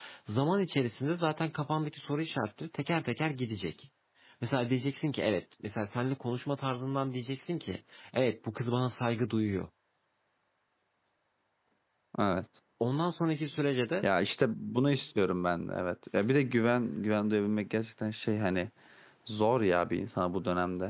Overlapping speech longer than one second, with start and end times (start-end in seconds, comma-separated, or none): none